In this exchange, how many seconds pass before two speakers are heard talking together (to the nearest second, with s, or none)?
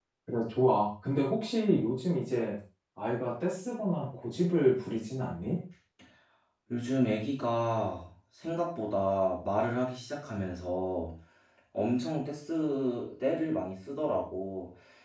none